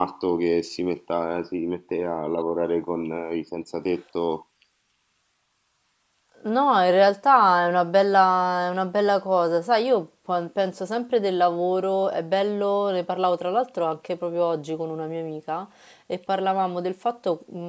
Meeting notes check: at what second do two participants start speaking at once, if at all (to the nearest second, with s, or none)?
none